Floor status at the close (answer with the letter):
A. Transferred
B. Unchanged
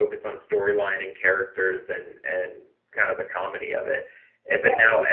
B